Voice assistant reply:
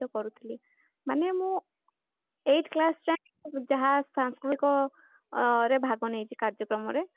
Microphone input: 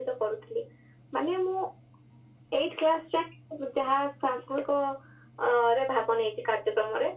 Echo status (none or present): present